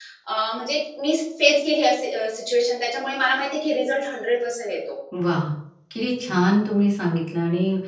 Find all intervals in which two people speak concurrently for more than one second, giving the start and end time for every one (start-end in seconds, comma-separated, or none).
none